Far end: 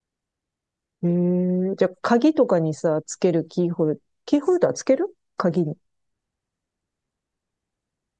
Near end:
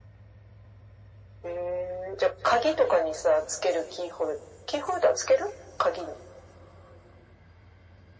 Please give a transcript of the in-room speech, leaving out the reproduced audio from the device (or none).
none